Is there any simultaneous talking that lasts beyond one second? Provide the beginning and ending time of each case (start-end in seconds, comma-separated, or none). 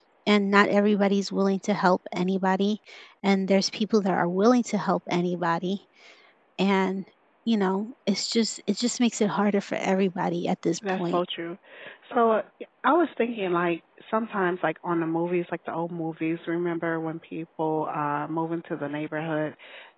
none